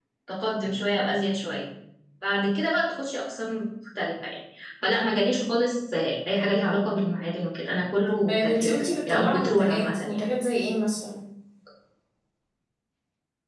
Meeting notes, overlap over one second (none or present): present